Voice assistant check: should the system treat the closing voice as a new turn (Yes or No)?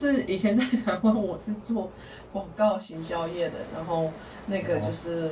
No